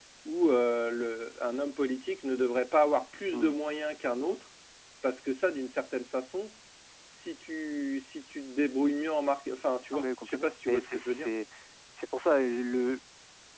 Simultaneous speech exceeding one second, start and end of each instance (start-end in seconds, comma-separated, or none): 10.0-11.3